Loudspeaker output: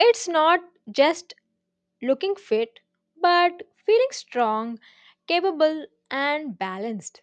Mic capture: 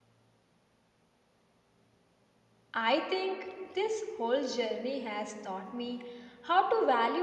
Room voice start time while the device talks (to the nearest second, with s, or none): 3 s